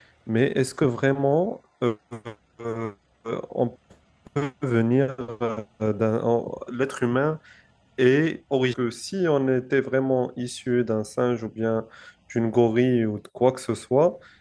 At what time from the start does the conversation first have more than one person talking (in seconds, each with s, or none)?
none